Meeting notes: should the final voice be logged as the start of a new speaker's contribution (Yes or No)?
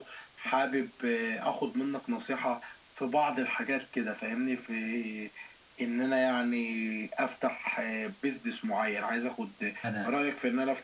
No